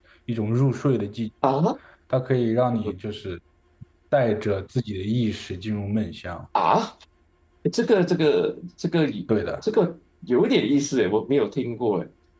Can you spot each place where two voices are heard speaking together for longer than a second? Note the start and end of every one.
none

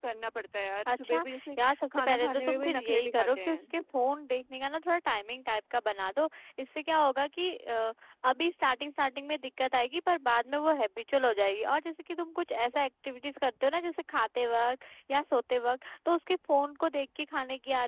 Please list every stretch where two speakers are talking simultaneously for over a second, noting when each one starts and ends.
1.6-3.6

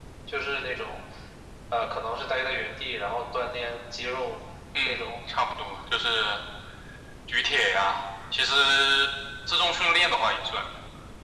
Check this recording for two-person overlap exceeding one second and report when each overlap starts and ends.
none

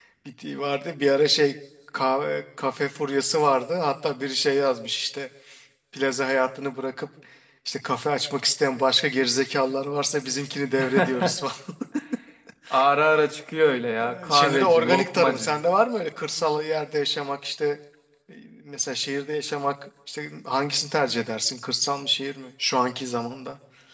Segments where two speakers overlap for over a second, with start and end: 14.1-15.6

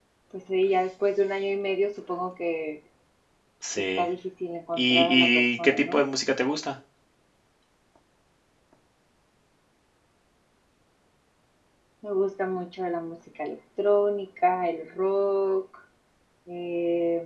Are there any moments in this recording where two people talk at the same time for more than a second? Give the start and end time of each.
4.8-6.0

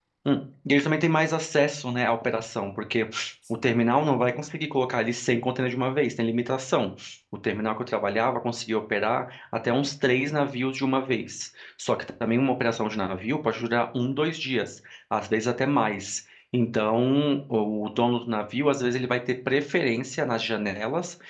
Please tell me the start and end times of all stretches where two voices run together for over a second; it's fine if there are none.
none

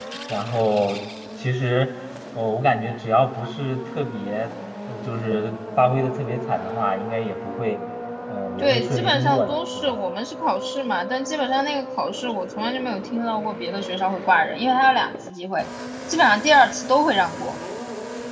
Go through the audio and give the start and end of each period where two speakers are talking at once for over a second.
8.6-10.0

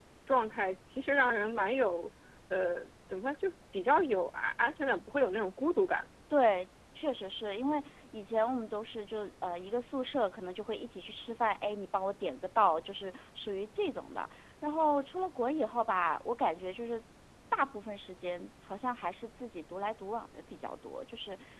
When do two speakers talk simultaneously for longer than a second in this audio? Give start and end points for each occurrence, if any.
none

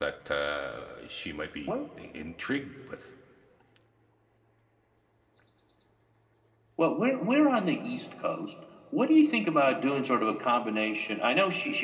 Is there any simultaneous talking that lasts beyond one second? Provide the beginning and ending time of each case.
none

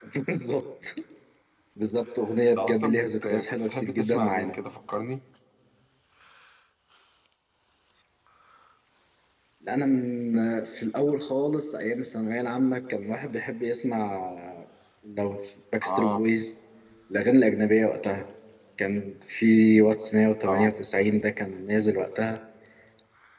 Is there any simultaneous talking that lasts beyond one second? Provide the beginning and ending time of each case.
2.6-4.5

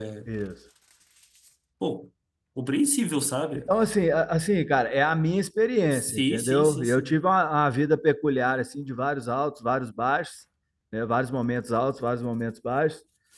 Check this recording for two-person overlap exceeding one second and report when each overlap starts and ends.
5.9-7.2

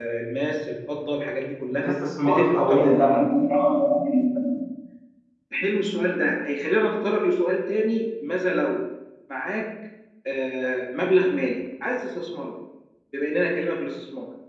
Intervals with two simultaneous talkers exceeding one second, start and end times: 1.7-3.0

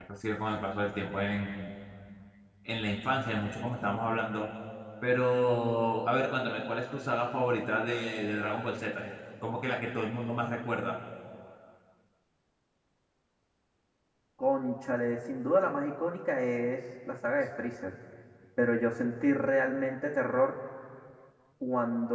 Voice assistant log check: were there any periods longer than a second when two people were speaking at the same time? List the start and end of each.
none

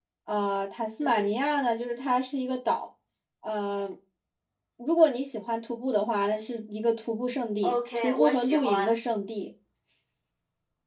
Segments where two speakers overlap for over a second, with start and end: 7.6-9.0

